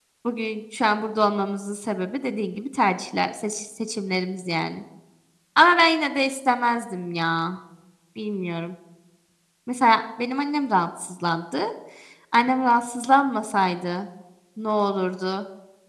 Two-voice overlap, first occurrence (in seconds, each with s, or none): none